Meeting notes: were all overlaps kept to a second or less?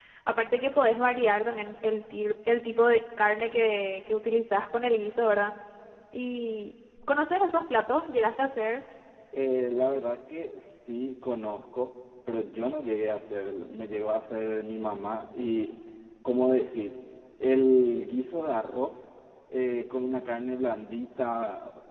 Yes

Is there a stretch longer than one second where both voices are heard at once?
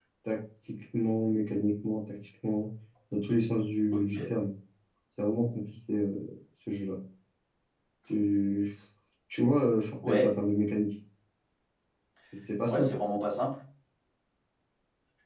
No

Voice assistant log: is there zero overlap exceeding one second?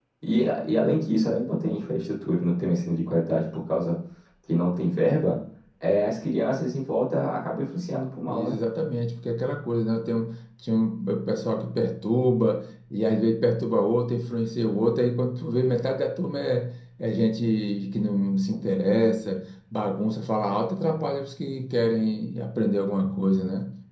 Yes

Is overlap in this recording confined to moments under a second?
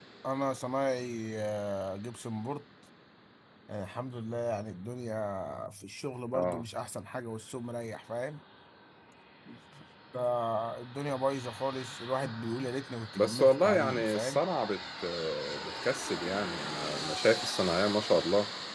No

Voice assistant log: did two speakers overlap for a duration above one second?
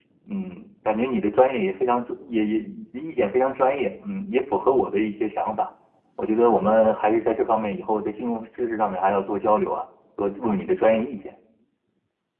No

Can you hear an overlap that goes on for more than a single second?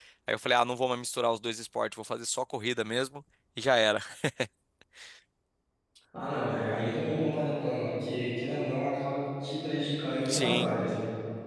No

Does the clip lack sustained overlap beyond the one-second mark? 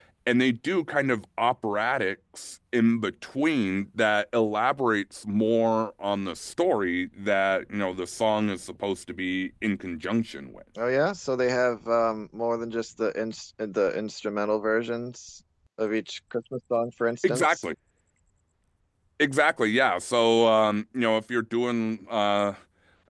Yes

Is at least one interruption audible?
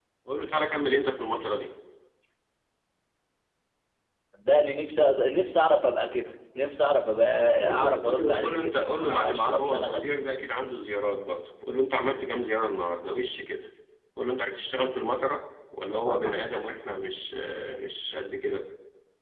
Yes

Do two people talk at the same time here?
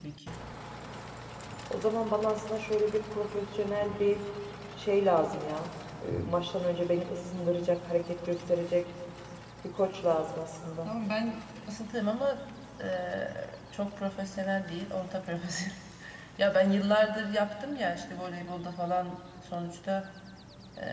No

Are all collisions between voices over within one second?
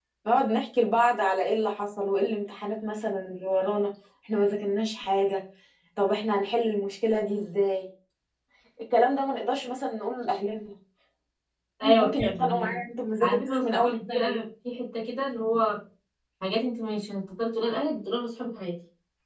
No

